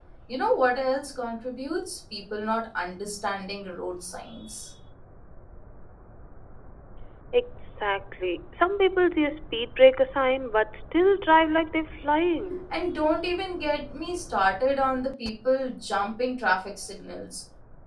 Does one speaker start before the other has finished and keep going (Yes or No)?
No